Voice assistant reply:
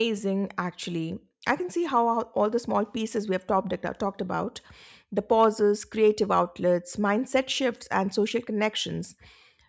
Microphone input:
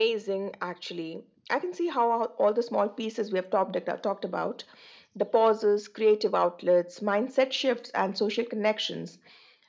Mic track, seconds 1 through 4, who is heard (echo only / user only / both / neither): echo only